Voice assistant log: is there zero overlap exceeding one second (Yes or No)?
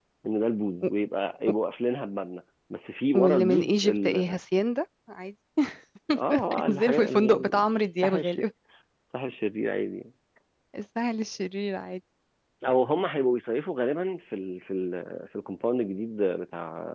No